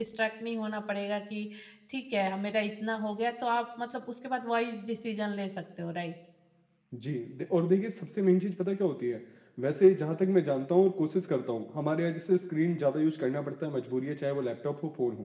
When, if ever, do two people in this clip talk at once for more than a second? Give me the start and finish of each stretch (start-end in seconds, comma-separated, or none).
none